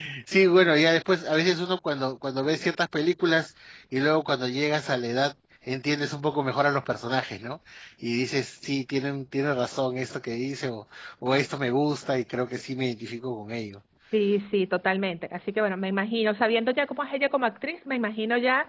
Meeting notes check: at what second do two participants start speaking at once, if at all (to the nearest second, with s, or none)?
none